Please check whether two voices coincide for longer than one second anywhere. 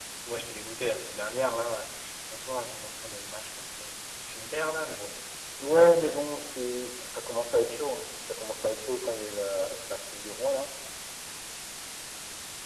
No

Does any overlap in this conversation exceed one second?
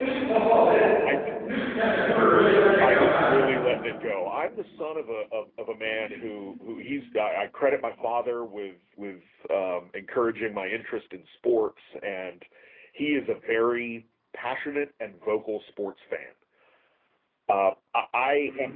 No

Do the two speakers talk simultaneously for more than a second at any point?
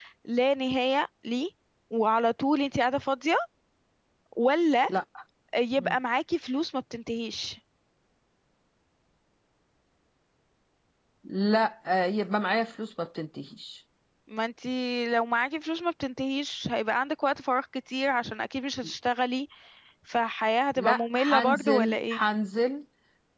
Yes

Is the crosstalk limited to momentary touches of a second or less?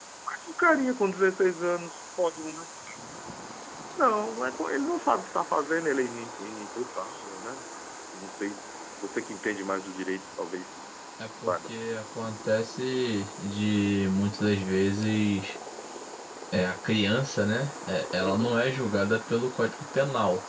Yes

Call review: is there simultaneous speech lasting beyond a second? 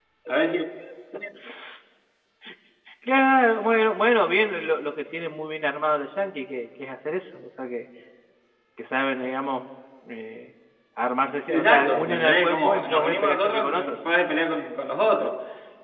Yes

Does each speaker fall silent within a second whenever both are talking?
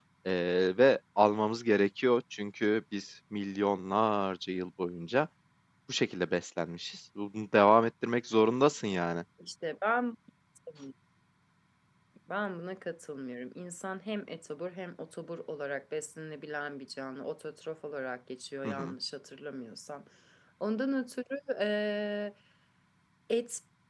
Yes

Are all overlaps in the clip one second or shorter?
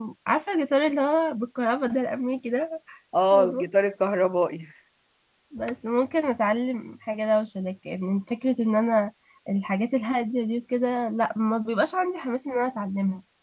Yes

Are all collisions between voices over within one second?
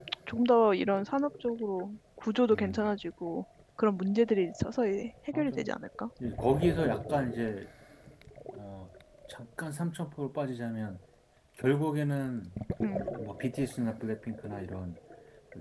Yes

